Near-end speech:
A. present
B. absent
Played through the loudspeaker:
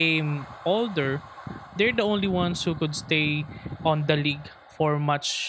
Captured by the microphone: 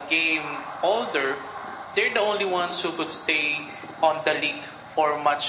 B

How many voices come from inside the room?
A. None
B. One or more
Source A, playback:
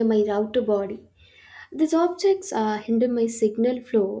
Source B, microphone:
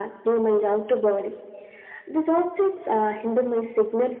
A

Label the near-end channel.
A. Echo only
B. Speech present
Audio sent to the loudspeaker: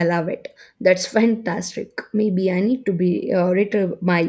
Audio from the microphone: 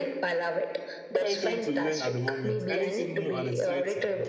B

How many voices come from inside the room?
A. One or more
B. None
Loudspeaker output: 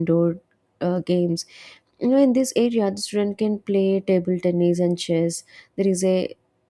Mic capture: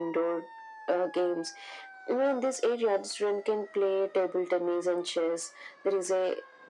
B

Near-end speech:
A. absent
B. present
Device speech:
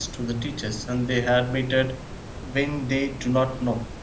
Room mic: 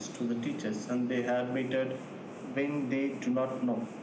A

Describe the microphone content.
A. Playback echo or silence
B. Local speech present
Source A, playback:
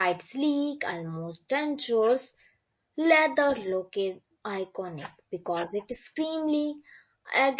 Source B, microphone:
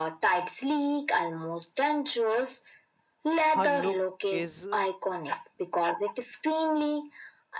B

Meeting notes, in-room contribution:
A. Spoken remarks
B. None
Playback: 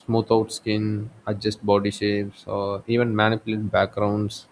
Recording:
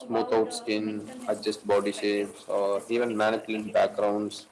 A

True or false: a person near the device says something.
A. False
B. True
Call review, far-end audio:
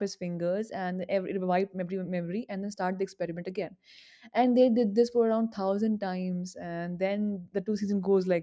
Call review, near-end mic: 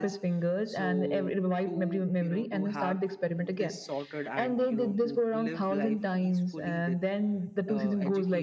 B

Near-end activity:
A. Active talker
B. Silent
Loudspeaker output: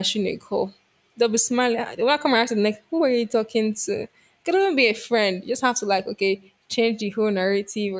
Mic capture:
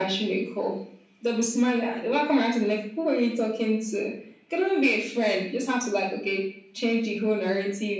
B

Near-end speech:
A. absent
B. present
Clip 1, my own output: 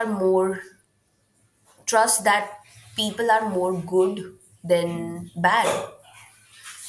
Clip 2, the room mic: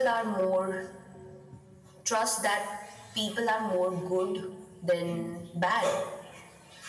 A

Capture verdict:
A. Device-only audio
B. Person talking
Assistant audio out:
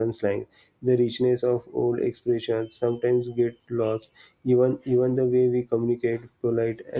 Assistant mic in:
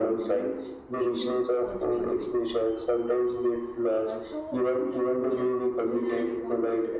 B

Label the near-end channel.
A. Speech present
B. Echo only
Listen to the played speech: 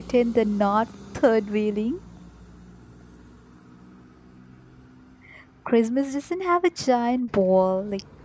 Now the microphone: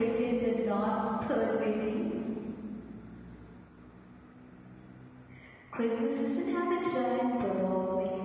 B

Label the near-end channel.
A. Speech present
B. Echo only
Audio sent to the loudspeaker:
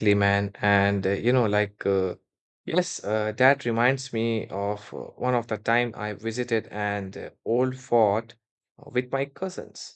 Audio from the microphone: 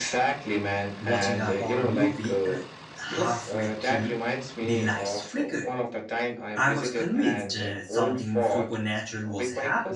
A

